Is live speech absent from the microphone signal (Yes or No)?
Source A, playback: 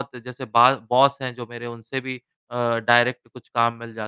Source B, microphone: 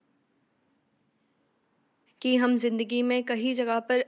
No